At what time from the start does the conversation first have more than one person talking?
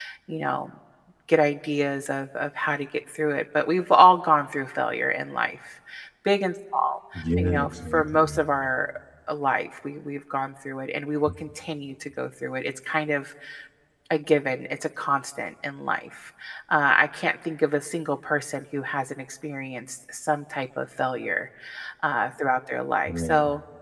7.2 s

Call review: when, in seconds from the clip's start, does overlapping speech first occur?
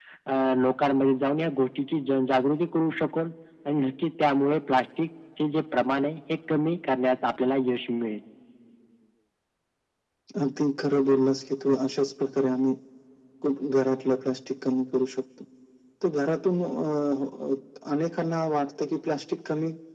none

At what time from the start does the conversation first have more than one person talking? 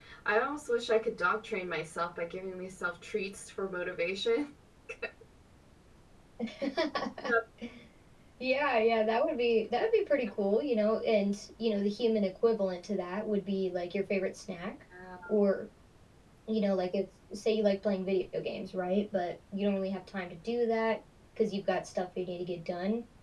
none

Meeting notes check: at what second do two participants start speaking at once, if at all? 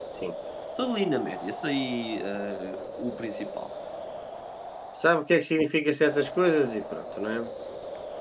none

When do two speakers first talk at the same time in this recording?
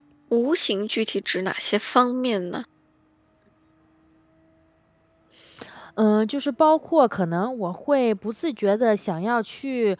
none

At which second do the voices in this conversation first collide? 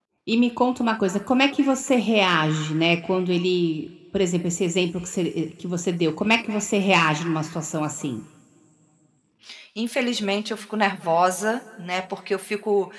none

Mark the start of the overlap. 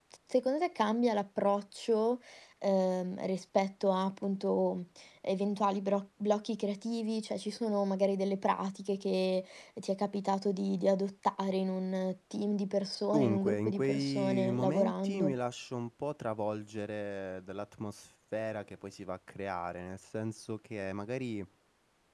13.1 s

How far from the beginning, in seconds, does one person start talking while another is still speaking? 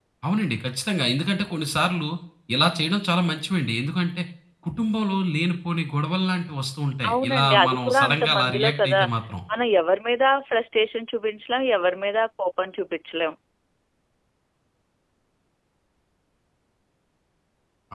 7.0 s

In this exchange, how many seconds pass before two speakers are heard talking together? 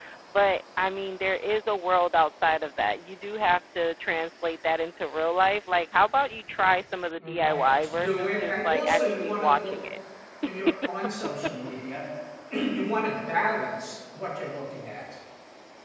7.2 s

